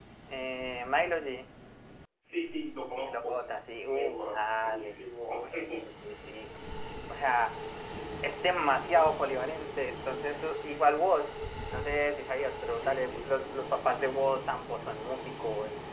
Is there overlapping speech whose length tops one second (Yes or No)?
Yes